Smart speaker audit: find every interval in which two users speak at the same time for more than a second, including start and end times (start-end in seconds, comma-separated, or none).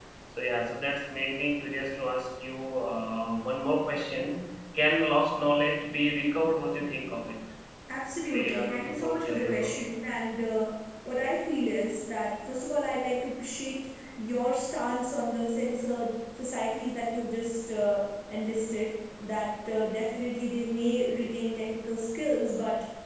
8.3-9.9